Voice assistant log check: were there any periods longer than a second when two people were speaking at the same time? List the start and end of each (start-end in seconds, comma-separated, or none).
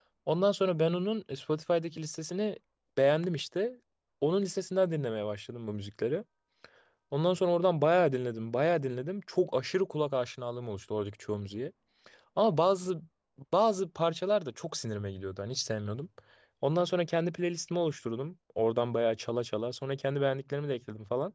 none